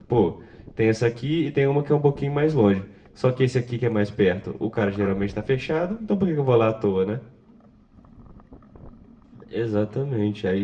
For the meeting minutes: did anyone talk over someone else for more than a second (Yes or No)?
No